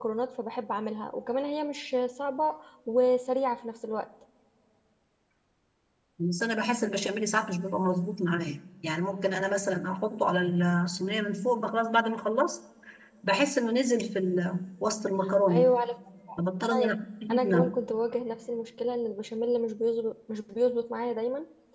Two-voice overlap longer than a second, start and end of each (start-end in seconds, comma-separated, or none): none